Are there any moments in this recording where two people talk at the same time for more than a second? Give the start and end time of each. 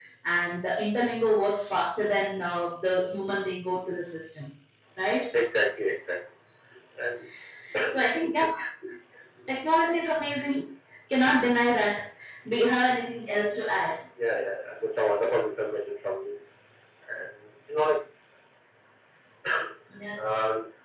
none

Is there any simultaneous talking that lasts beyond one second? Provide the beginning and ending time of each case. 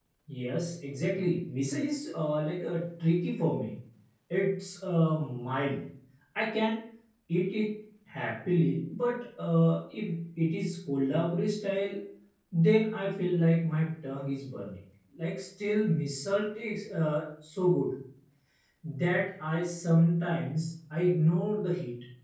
none

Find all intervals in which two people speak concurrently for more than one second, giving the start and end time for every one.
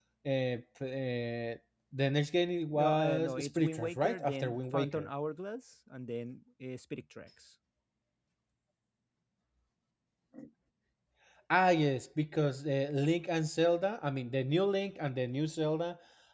2.7-5.1

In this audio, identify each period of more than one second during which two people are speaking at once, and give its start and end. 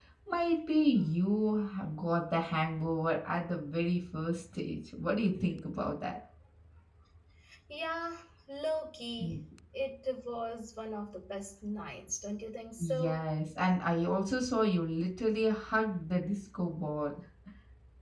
none

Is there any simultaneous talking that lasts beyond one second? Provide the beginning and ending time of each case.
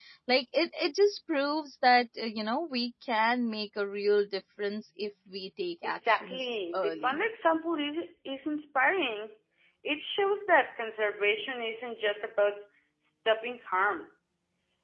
5.8-7.2

